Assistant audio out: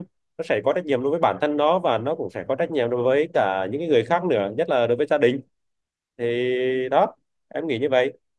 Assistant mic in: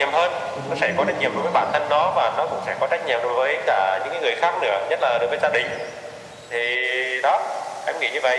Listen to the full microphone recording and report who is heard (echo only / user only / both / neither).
both